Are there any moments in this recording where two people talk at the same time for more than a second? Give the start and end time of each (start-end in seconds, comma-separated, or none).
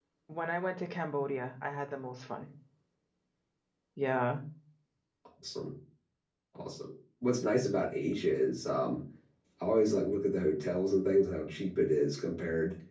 none